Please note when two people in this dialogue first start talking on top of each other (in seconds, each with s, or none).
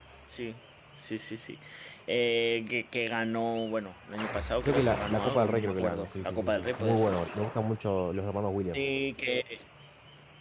4.6 s